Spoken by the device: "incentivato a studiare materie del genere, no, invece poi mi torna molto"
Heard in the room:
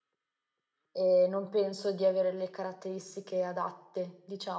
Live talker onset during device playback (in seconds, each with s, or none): 0.9 s